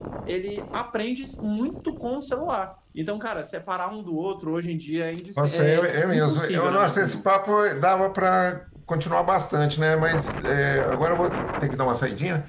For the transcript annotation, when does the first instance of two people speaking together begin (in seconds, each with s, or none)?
5.4 s